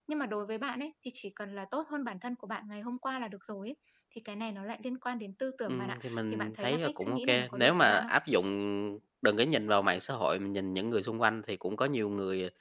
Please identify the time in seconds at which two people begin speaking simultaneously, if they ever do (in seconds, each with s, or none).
5.7 s